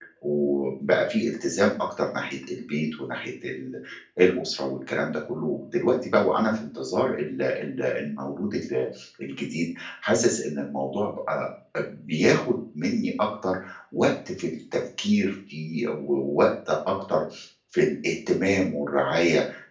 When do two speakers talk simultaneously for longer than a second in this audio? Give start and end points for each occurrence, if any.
none

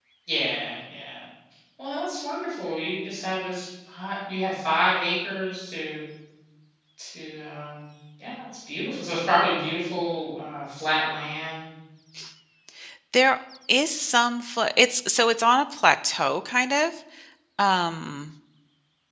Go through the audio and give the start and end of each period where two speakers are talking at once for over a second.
none

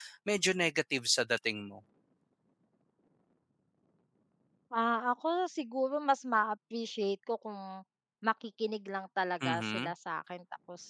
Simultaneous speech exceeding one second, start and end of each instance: none

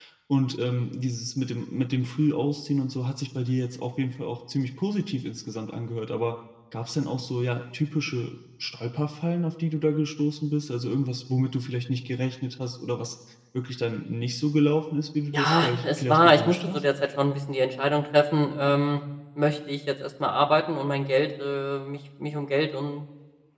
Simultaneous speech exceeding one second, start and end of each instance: 15.3-16.8

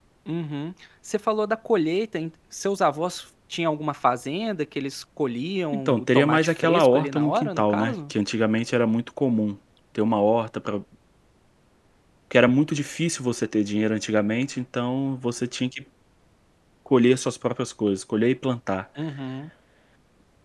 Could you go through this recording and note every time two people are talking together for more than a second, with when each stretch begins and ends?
5.7-8.1

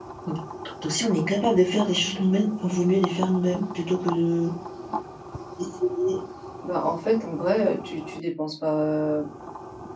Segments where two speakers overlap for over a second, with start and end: none

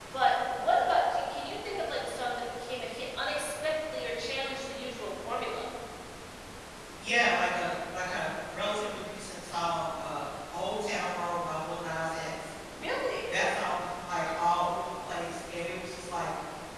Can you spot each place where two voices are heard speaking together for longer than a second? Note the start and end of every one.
none

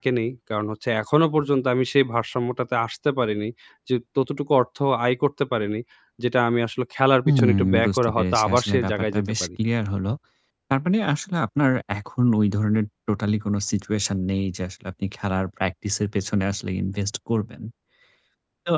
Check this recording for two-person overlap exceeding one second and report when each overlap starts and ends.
7.3-9.5

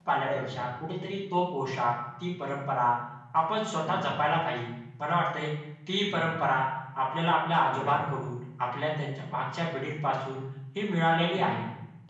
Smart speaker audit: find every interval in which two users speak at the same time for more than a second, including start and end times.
none

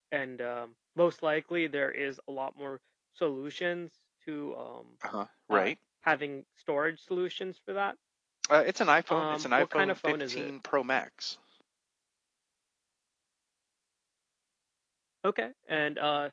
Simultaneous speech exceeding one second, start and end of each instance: 9.1-10.5

